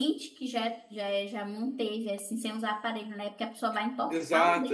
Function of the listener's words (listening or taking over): taking over